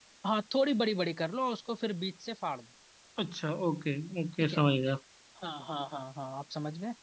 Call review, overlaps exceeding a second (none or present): none